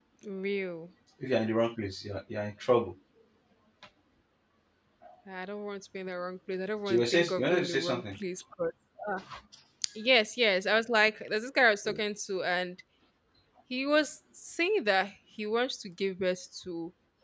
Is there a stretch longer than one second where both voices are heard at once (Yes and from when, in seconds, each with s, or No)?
Yes, from 6.9 s